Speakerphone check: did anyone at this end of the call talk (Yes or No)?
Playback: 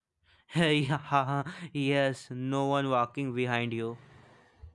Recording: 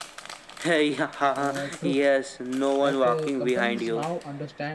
Yes